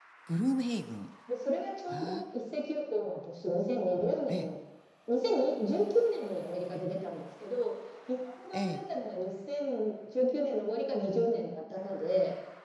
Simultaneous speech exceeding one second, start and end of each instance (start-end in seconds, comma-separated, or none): none